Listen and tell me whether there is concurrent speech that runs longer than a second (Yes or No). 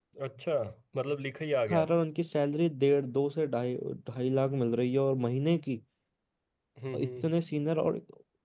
No